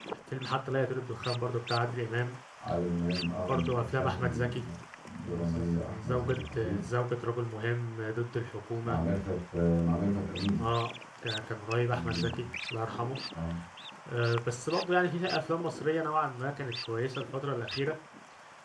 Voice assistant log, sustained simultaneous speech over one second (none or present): present